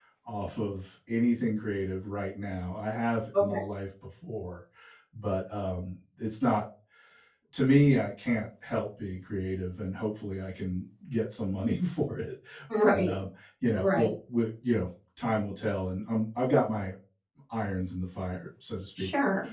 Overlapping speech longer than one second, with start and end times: none

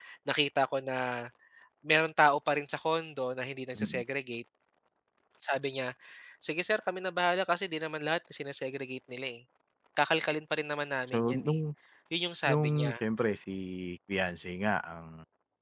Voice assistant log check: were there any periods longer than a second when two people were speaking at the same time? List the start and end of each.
none

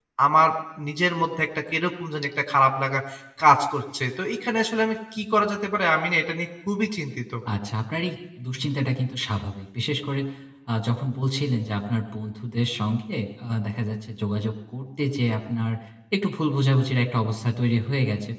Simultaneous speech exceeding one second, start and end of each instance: none

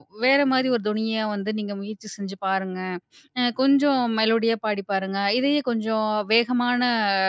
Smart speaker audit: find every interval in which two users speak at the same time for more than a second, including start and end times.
none

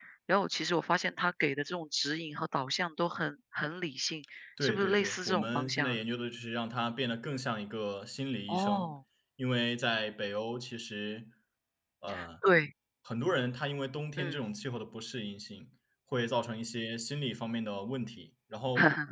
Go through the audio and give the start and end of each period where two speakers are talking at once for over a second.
4.6-6.0

